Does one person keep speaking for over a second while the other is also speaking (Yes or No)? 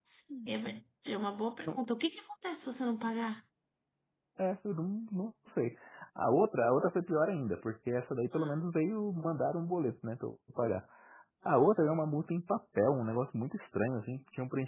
No